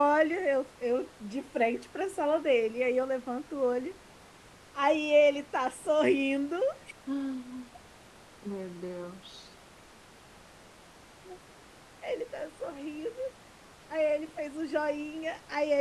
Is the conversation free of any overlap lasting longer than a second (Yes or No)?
Yes